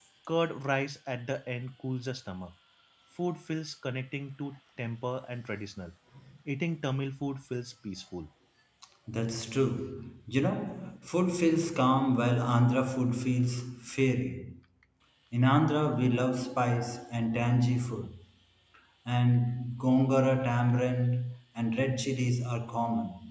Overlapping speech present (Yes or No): No